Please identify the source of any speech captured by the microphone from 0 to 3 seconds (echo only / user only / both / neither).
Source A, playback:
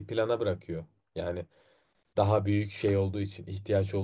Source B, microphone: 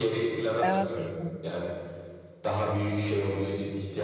both